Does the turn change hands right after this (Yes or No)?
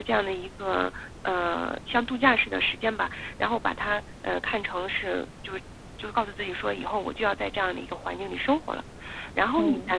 No